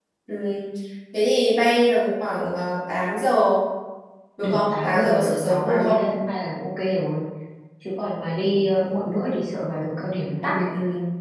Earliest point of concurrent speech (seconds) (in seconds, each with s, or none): 4.4 s